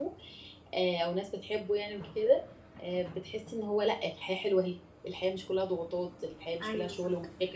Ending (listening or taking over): taking over